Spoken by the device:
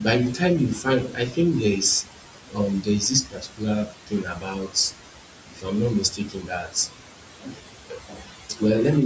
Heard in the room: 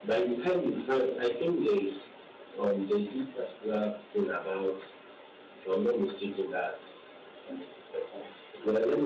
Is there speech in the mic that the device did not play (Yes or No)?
No